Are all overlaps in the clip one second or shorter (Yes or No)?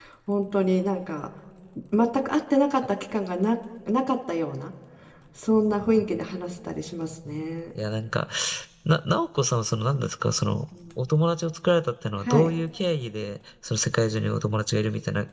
Yes